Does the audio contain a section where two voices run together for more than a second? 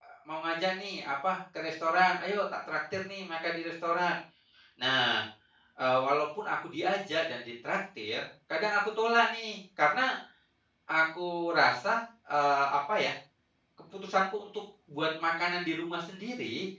No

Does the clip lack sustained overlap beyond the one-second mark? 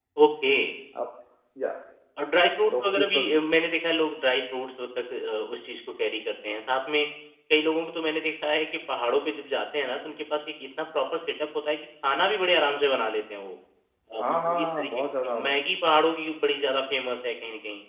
No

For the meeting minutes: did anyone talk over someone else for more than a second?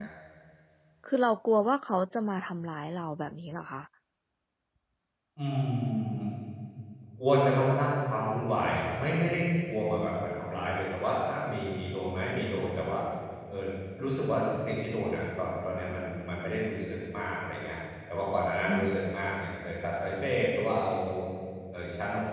No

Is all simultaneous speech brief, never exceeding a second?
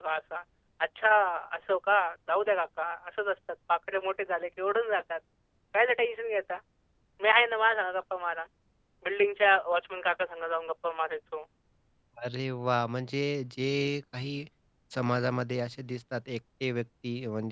Yes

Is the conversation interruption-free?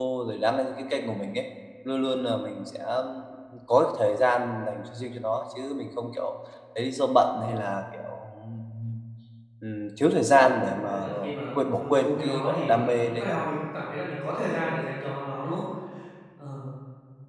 No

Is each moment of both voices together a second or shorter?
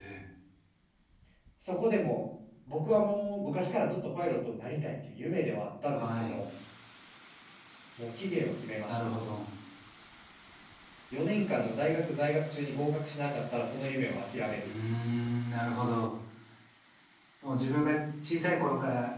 Yes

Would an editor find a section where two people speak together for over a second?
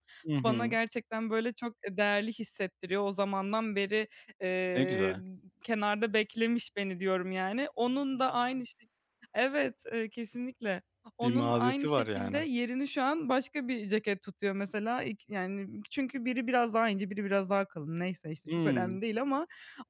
Yes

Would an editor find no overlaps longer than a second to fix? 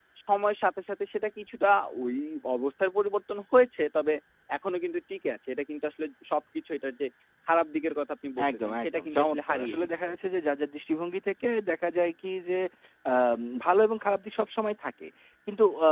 No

